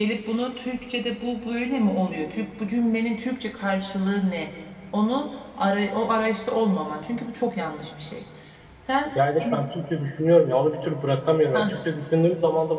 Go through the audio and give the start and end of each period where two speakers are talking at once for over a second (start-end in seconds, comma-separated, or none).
none